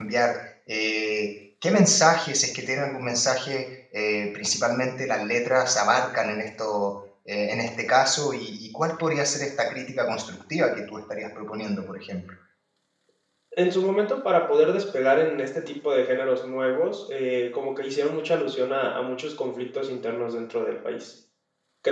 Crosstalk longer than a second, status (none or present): none